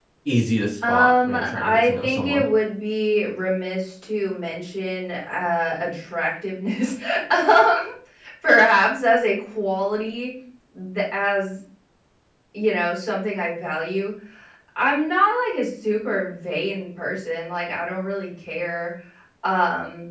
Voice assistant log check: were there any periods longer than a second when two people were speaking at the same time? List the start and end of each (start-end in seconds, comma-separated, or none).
0.9-2.5